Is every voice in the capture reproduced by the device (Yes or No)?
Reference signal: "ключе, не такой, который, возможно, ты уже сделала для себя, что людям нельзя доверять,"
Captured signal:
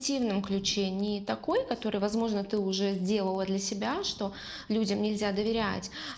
Yes